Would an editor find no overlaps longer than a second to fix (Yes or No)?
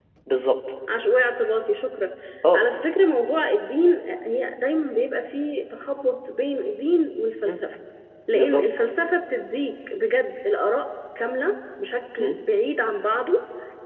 Yes